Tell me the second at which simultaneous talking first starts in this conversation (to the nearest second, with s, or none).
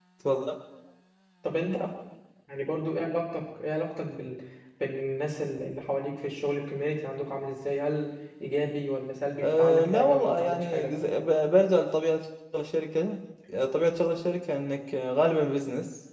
9 s